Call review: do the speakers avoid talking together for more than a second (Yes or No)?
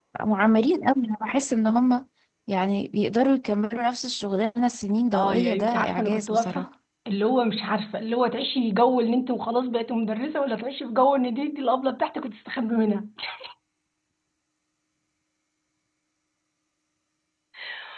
No